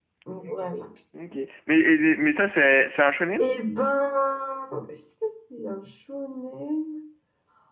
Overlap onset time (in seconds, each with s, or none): none